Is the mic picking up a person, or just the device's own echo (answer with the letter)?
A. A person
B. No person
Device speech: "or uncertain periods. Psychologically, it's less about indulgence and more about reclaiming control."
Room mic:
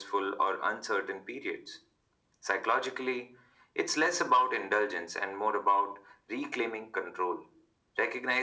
B